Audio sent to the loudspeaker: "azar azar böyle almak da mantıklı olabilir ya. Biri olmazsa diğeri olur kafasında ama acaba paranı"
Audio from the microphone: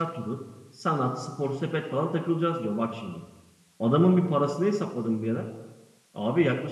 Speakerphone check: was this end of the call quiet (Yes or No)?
No